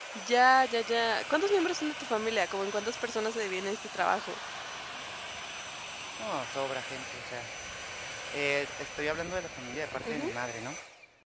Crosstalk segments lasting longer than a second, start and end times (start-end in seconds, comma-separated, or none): none